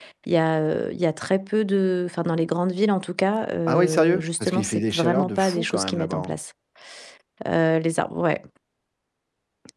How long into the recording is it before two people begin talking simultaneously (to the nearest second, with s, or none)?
4 s